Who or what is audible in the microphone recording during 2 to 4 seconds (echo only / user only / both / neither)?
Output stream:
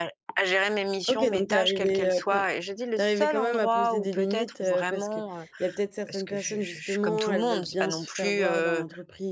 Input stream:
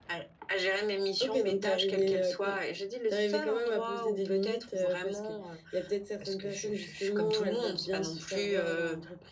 echo only